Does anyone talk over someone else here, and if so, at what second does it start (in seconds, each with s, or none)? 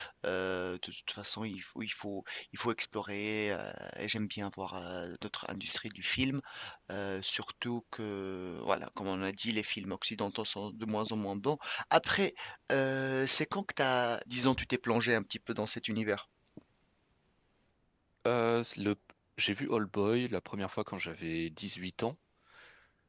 none